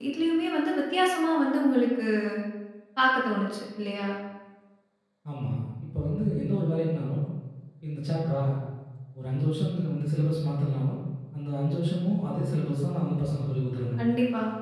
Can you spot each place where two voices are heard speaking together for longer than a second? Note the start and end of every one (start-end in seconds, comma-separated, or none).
none